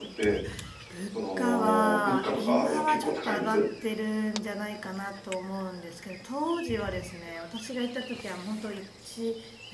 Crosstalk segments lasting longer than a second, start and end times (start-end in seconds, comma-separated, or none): 1.1-3.6